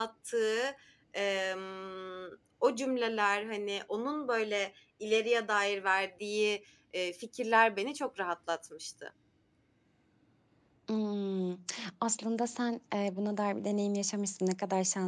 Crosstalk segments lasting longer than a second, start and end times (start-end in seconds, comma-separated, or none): none